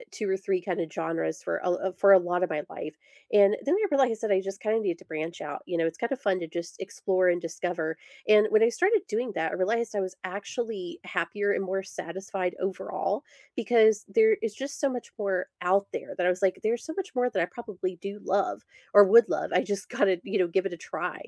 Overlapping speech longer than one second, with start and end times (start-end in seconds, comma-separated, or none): none